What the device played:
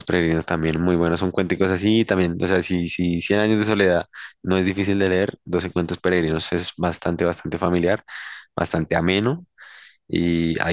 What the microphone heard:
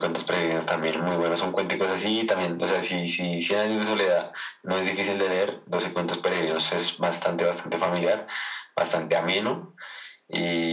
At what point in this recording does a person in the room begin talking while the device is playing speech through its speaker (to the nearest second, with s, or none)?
none